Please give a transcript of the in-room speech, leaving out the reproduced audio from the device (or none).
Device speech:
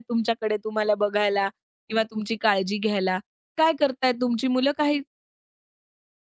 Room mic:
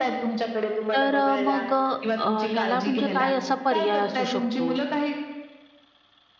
तर अ, मग अ, ह्याला म्हणजे काय असा पर्याय असू शकतो?